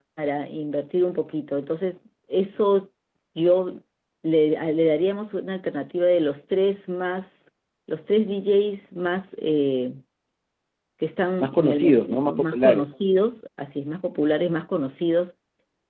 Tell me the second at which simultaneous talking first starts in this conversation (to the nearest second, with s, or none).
11 s